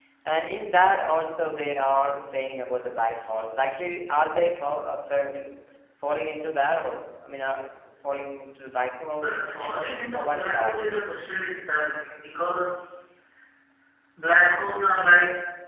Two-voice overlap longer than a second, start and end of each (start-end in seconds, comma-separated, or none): 9.2-11.0